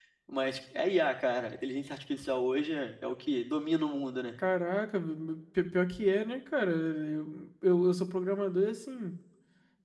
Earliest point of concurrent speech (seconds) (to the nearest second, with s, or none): none